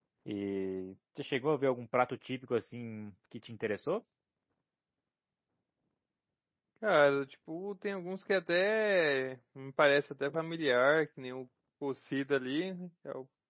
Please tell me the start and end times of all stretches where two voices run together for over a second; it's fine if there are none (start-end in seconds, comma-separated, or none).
none